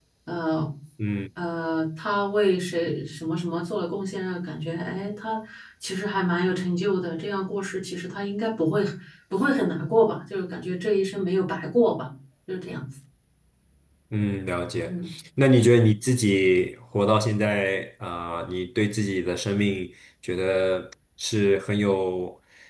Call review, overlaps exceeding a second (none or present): none